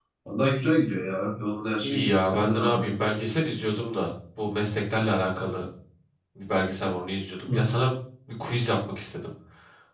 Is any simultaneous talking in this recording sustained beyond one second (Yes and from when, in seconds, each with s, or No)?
Yes, from 1.8 s